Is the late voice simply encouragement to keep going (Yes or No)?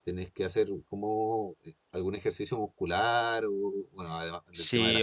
No